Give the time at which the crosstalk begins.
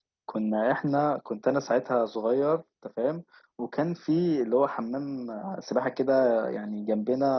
none

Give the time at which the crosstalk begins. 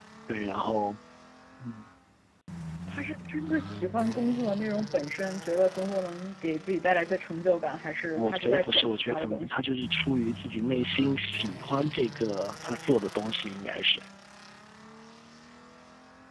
8 s

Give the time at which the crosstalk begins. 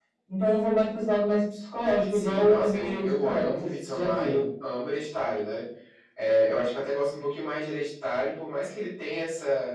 2 s

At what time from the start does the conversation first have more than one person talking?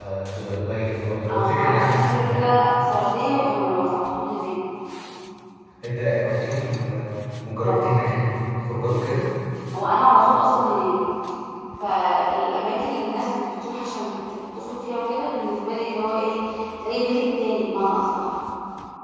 1 s

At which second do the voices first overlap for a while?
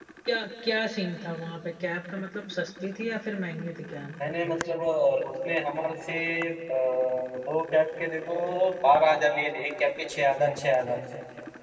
none

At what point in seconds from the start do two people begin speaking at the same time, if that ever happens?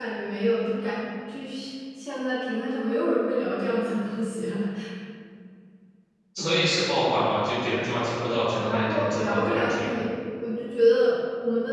9 s

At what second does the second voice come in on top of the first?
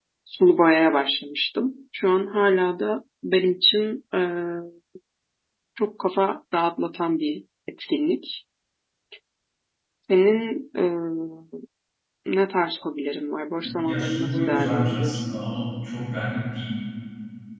14 s

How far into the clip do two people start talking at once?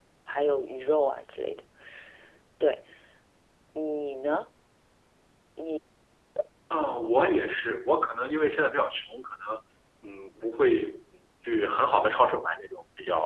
none

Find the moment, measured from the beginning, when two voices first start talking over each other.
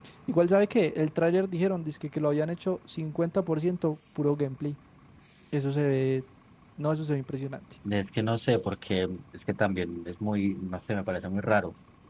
none

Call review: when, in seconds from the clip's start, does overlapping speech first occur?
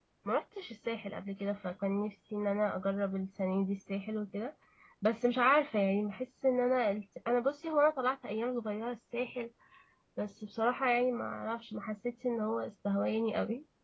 none

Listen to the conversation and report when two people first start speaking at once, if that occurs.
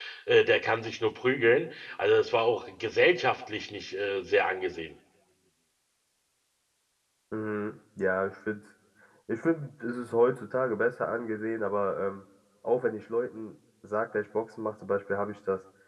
none

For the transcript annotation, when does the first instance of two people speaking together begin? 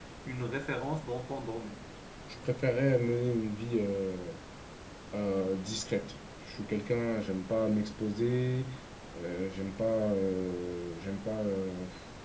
none

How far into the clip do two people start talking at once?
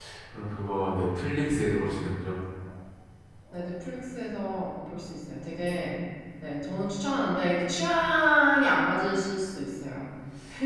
none

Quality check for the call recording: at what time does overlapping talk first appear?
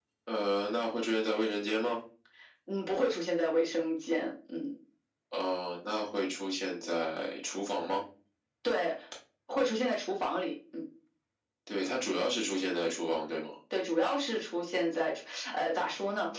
none

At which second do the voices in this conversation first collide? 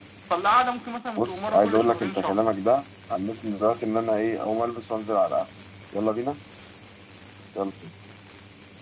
1 s

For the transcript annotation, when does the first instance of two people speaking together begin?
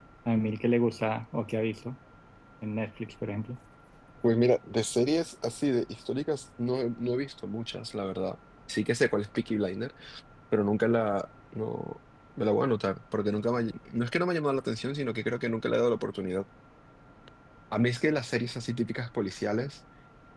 none

